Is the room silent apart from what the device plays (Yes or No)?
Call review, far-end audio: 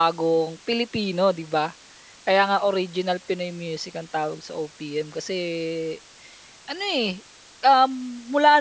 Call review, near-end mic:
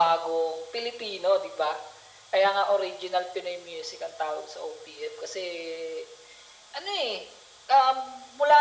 Yes